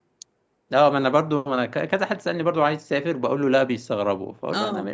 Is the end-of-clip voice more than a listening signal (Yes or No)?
No